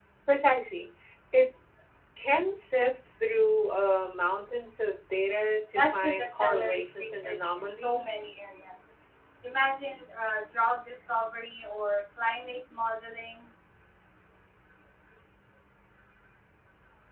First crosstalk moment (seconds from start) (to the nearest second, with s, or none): 6 s